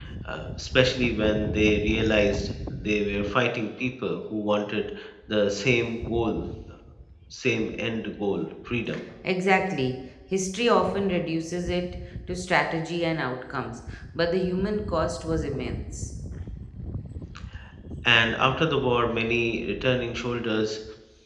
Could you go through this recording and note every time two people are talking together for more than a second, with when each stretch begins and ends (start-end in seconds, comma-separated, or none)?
none